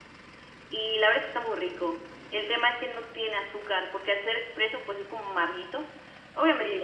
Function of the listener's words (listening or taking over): taking over